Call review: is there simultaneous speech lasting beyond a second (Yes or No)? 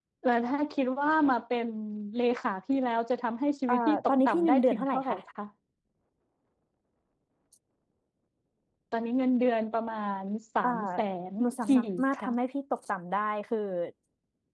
Yes